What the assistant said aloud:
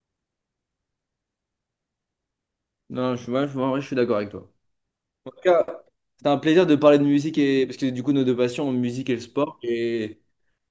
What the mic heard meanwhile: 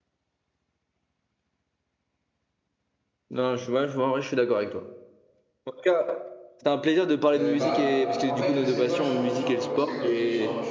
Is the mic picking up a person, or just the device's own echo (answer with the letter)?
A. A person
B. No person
A